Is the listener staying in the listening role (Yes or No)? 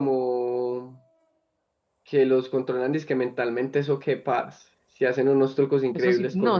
No